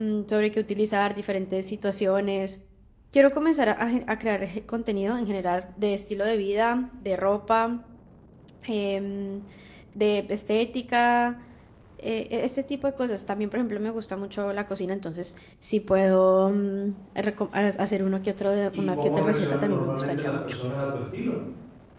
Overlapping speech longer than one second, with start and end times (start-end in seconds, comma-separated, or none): 18.7-20.6